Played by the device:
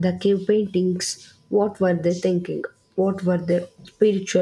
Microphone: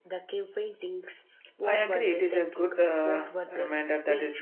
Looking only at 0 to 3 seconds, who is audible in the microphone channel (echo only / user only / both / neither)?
both